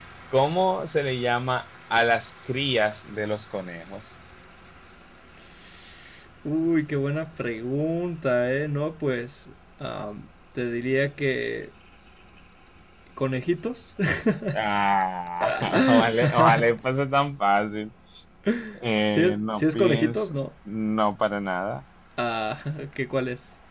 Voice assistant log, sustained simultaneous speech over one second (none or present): present